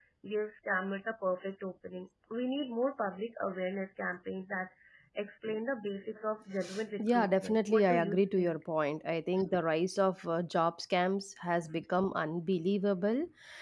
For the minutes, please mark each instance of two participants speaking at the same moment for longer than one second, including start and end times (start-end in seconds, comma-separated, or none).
7.1-8.6